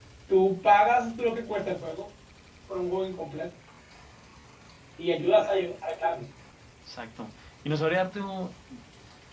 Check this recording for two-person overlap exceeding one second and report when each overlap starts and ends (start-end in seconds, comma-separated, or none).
none